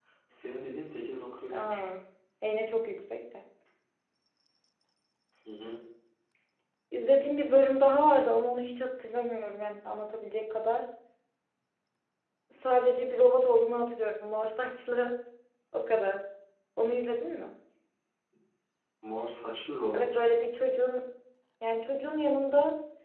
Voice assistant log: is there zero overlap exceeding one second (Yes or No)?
Yes